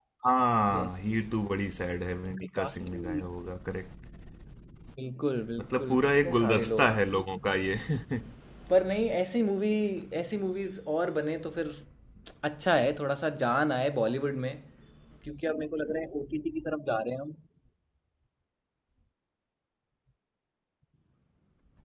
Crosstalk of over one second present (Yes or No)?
Yes